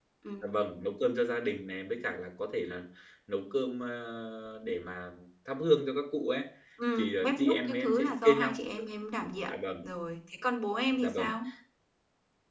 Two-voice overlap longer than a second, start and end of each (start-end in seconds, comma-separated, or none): 7.0-8.8